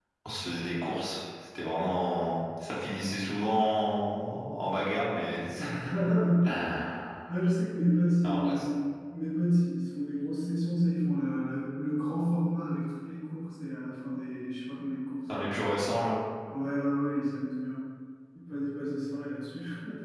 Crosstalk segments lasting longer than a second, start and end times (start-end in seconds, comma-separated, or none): none